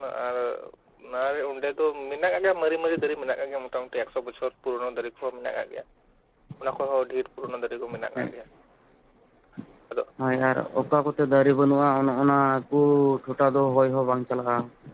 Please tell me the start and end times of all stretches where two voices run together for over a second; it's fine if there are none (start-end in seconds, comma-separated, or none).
none